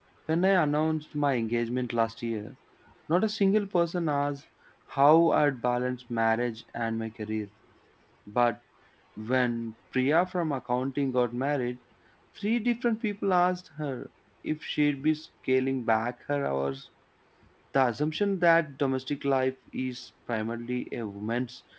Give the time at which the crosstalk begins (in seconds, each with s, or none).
none